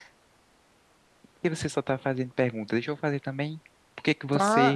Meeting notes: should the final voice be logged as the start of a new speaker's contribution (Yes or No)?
Yes